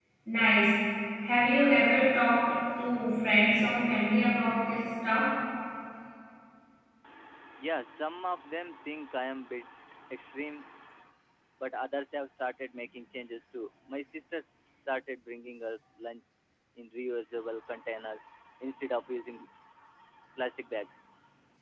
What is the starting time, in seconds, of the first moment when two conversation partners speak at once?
none

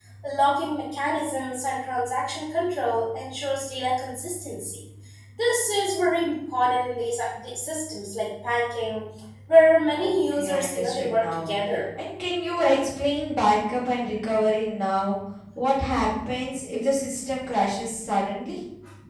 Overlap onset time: 10.0 s

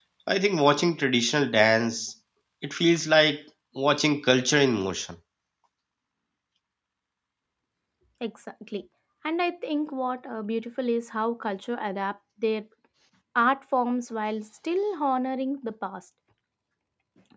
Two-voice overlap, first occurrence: none

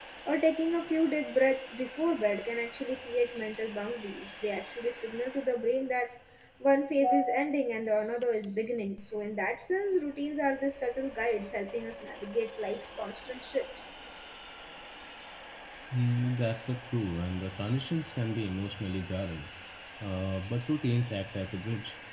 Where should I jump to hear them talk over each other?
none

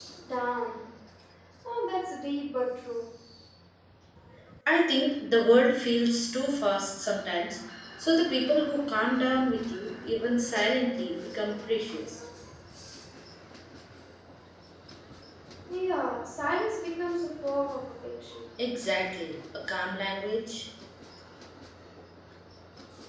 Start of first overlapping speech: none

